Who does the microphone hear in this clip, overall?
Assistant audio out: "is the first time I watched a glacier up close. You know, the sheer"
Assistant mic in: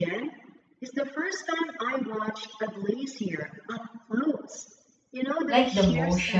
both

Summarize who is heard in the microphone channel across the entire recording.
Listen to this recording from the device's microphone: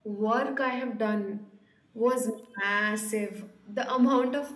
echo only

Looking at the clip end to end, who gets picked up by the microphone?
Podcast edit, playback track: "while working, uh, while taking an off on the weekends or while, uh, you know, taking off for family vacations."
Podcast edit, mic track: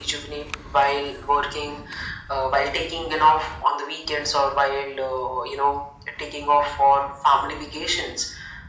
echo only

